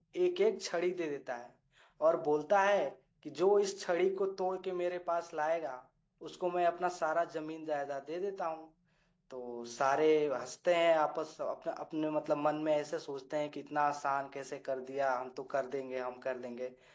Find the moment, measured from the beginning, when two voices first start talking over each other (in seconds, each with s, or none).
none